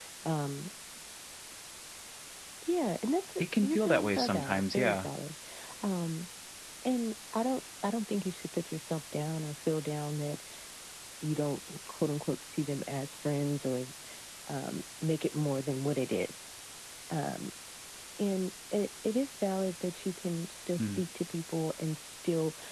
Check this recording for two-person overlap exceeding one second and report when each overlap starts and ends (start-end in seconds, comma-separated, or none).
3.4-5.1